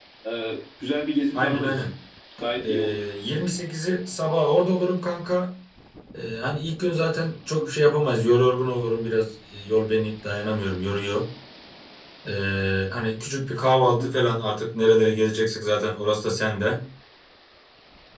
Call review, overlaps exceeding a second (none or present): none